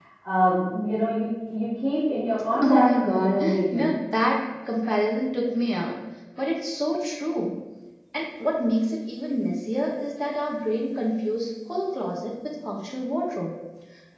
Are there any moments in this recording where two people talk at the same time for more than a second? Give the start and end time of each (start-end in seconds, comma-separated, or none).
2.6-3.9